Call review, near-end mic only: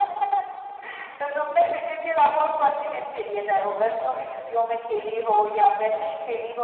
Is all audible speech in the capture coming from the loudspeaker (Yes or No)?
Yes